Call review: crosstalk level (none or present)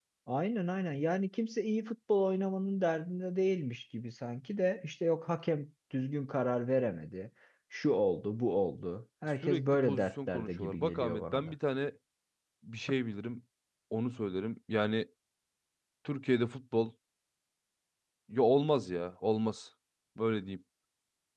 present